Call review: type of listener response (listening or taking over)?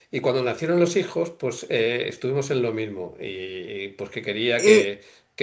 listening